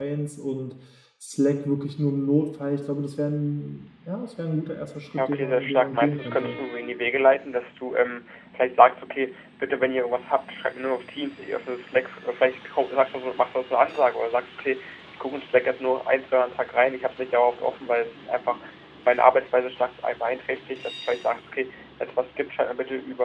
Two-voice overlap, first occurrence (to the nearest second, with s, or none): 5 s